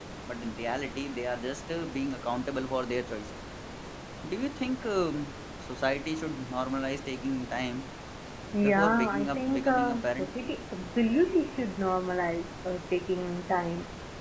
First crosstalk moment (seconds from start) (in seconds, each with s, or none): 8.6 s